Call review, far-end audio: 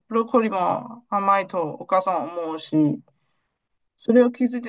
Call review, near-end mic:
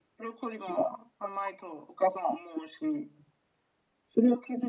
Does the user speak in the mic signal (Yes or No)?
No